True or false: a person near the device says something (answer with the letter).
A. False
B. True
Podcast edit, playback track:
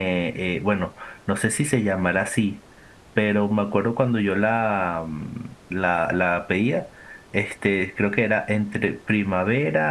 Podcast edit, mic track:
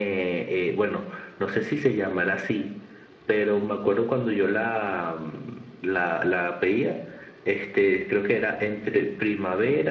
A